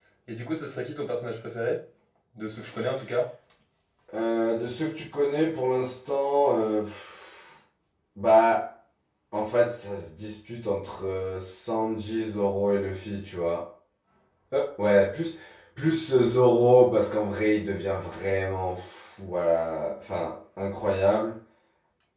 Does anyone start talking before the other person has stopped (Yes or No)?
No